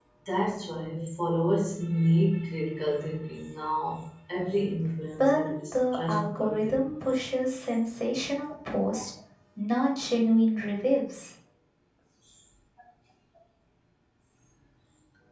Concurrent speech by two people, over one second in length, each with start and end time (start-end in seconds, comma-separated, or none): 5.2-6.8